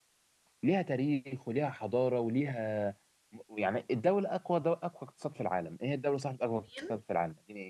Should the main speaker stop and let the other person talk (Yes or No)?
No